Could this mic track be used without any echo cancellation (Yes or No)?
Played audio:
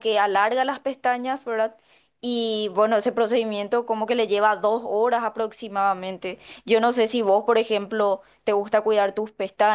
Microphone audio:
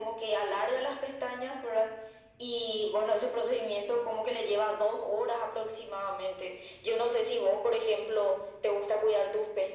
No